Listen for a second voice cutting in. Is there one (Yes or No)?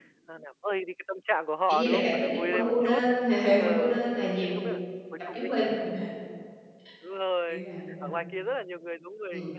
Yes